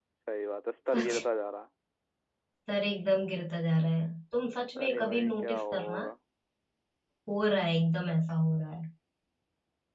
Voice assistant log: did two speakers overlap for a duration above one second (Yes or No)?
Yes